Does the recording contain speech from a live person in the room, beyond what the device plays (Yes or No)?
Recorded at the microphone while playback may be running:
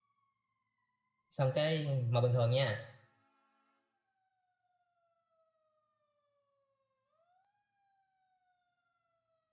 Yes